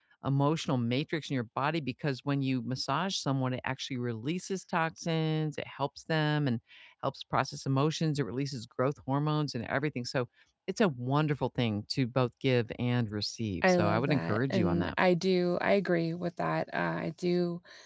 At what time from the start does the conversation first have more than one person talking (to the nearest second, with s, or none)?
14 s